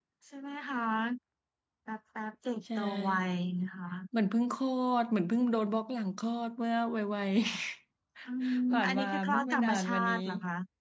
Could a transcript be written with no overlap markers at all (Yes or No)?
No